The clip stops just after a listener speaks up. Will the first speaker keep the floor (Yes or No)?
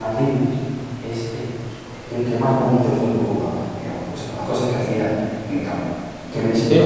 No